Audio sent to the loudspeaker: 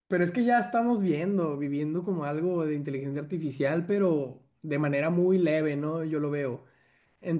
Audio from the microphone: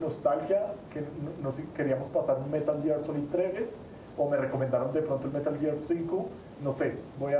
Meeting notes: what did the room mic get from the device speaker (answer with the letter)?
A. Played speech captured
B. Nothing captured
B